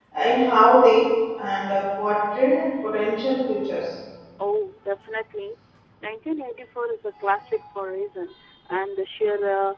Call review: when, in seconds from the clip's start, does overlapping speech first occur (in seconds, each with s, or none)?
none